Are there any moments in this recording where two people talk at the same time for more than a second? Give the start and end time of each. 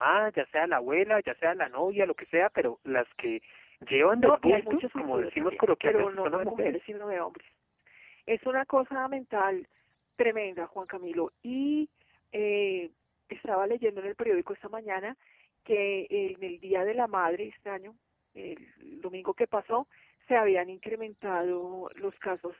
4.2-6.8

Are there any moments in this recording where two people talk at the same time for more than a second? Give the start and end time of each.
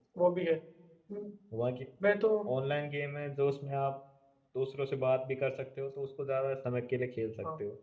none

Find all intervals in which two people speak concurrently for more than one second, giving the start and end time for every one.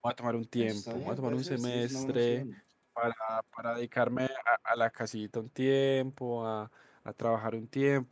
0.6-2.4

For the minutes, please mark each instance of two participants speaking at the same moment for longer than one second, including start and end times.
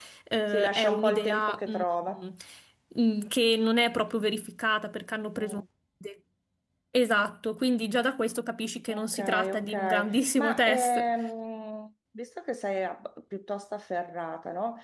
0.5-1.8, 8.9-11.0

